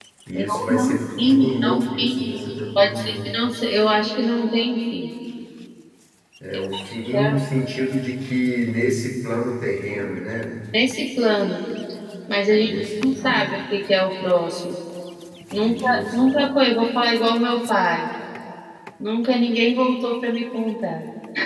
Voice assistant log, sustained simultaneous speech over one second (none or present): present